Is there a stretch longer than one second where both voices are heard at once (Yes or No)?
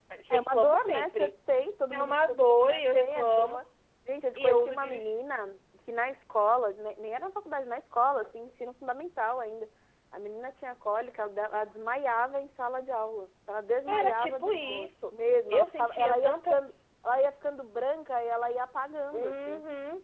Yes